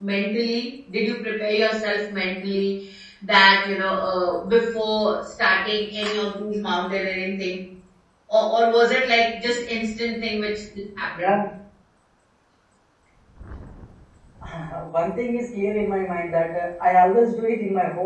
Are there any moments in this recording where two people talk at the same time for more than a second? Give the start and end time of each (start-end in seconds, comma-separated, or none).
none